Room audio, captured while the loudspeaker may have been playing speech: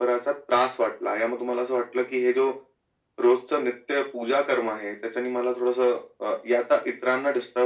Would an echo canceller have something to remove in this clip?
Yes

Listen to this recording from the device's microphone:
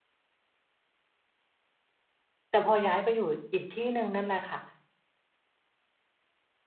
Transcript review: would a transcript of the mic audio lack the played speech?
Yes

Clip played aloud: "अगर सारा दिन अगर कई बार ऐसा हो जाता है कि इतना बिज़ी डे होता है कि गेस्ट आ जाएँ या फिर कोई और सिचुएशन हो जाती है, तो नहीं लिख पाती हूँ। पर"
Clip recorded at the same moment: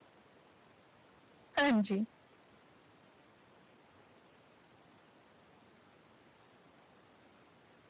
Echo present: No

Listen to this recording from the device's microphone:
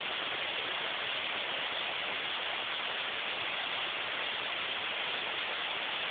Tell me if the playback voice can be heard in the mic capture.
No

